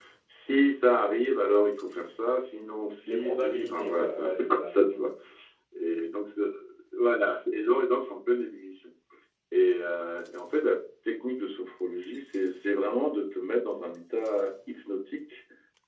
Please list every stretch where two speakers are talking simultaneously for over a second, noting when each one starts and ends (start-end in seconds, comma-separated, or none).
3.0-5.1